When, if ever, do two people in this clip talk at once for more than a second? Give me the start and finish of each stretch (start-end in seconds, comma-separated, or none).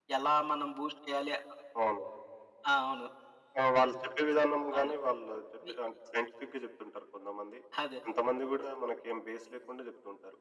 none